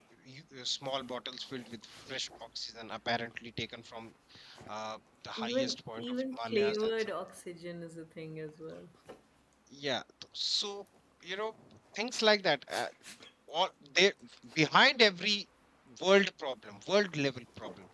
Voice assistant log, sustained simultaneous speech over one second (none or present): present